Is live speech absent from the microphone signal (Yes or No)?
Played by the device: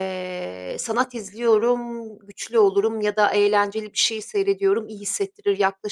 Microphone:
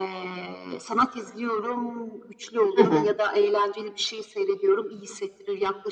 No